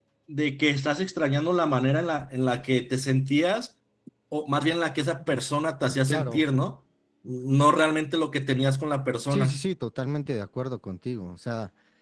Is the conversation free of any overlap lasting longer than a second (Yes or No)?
Yes